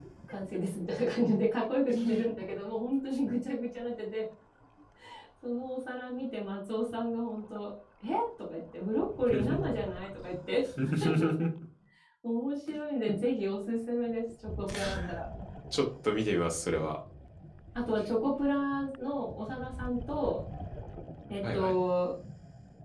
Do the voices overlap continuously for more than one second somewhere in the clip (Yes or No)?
No